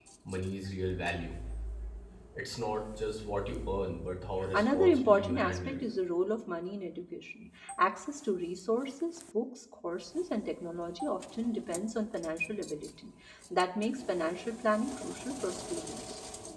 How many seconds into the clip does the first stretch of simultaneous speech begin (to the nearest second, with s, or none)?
5 s